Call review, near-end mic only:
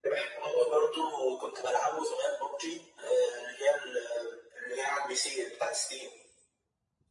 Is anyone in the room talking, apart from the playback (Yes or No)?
No